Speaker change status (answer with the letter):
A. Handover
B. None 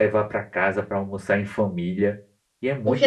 A